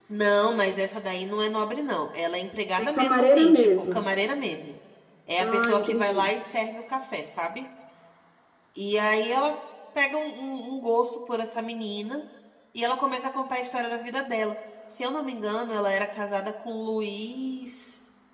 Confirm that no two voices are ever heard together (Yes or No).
No